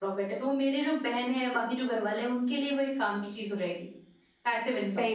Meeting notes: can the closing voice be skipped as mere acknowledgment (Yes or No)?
No